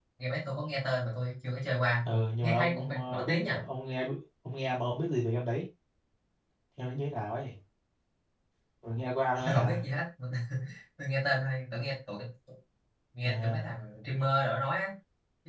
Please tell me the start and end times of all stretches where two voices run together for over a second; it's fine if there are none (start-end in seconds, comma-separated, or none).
2.0-3.6